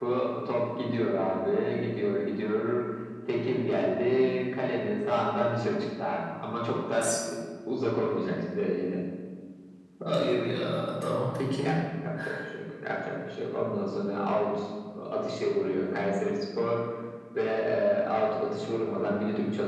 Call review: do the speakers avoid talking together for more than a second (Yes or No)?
Yes